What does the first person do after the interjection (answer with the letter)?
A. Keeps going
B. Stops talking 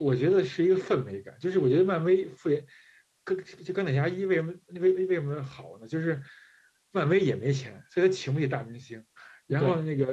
A